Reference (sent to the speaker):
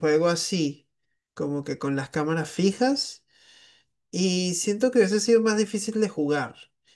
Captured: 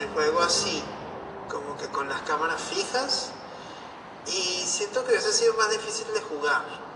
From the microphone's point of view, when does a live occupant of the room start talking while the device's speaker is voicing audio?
none

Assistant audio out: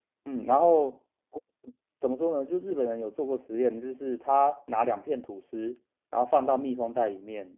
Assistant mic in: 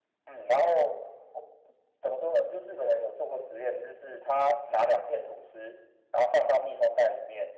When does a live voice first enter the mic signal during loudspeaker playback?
none

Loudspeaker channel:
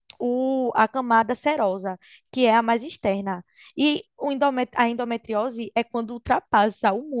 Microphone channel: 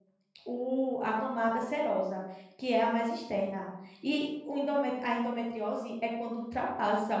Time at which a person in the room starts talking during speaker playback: none

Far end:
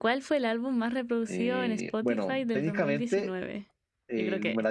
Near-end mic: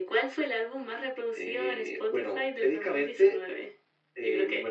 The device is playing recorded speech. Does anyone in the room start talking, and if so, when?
none

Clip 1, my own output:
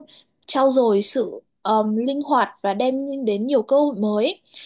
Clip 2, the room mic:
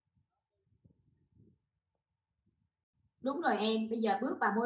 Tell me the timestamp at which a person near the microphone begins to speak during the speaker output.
3.2 s

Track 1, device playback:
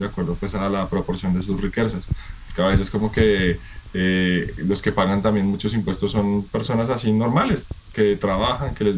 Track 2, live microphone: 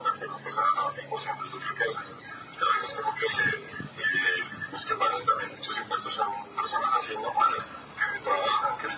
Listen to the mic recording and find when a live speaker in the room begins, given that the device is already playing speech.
none

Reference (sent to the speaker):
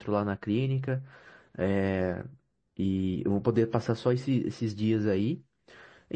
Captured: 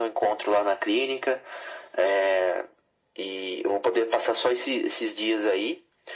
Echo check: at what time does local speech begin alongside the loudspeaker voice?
none

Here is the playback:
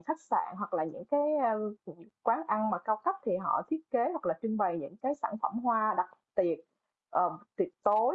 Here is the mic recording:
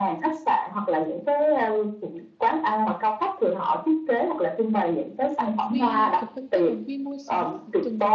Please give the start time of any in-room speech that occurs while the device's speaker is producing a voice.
5.4 s

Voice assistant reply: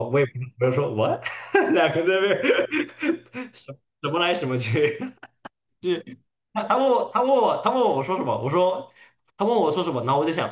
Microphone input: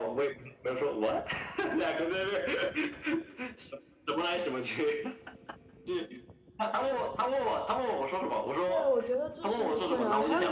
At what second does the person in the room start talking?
8.7 s

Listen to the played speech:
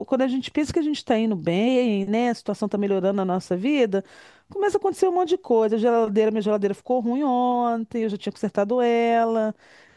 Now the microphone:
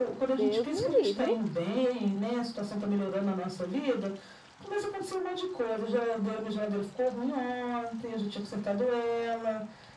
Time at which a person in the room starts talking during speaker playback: 0.3 s

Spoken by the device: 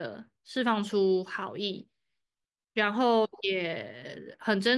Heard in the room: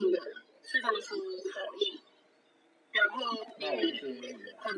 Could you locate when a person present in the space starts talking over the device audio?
3.5 s

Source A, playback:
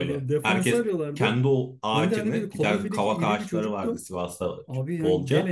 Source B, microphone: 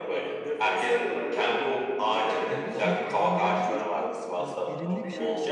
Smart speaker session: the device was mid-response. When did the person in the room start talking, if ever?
2.5 s

